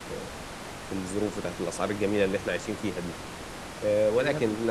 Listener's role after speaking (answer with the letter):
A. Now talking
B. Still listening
B